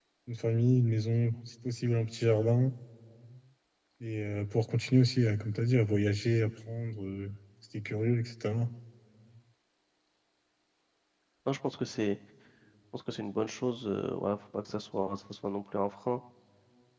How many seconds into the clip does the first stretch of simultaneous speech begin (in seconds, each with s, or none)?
none